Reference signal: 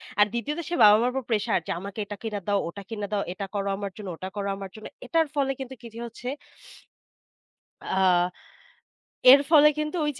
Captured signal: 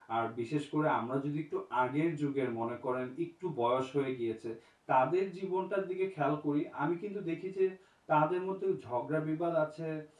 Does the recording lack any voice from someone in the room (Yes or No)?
No